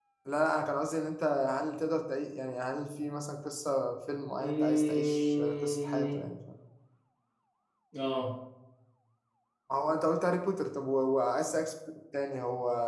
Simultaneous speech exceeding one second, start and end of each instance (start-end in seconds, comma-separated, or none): 4.4-6.2